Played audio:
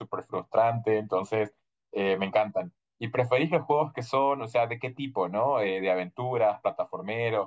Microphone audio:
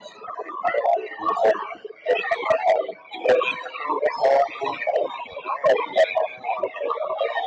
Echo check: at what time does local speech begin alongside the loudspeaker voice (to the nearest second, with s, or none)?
none